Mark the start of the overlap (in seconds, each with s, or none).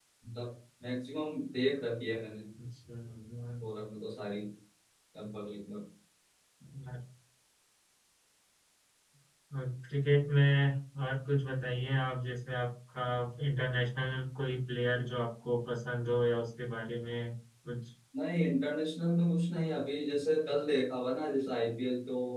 none